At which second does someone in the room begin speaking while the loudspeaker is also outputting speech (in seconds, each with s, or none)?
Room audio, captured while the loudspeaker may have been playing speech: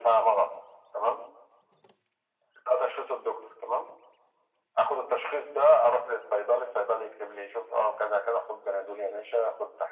none